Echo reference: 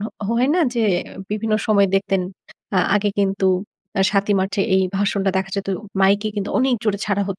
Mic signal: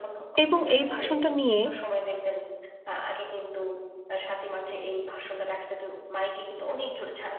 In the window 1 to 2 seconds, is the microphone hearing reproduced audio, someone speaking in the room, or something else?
both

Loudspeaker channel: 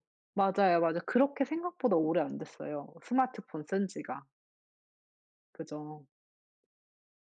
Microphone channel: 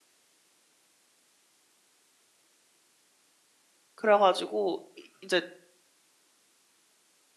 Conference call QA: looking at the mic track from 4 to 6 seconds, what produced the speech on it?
user only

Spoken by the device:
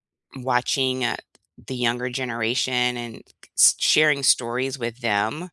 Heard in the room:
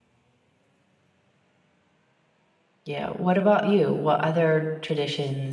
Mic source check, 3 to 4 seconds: user only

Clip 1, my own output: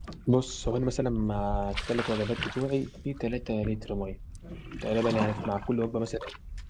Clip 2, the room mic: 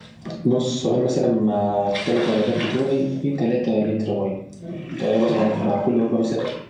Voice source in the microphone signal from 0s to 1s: echo only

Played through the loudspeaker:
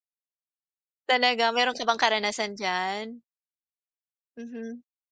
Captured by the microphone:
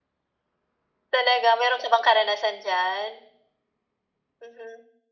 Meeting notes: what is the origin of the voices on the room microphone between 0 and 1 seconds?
neither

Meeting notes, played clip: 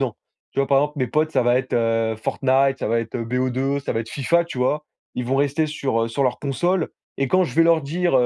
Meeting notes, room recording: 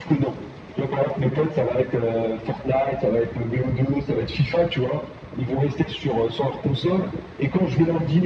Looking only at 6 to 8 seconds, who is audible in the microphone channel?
echo only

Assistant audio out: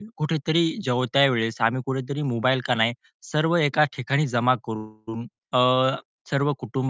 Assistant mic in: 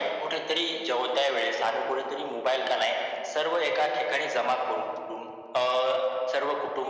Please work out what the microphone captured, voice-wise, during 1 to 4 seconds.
echo only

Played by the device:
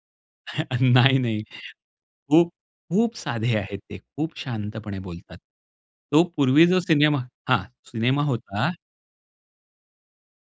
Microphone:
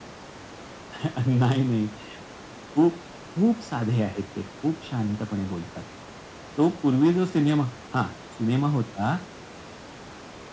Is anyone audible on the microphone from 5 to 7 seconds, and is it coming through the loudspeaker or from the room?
echo only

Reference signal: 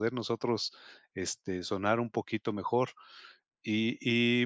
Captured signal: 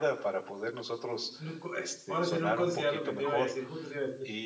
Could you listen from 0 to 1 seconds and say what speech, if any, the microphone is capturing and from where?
echo only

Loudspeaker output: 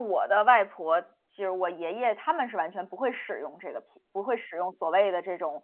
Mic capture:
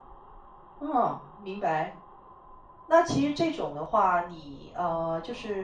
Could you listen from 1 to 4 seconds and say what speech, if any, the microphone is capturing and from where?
user only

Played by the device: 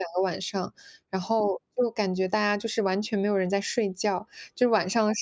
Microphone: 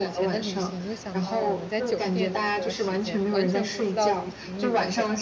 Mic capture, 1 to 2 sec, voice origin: both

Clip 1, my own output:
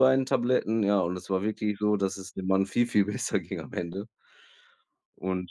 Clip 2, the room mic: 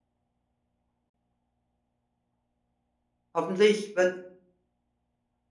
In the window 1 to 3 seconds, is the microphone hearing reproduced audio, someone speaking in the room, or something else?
neither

